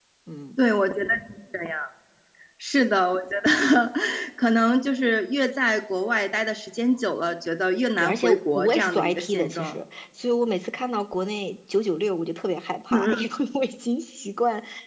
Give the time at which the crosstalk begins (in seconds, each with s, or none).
8.0 s